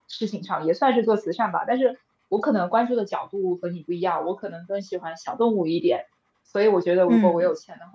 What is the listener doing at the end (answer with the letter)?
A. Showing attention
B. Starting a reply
A